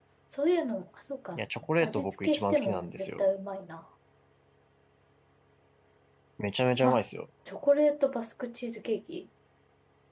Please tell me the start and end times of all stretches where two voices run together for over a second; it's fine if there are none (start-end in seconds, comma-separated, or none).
1.8-3.2